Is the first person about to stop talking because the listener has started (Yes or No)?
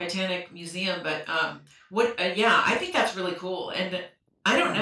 No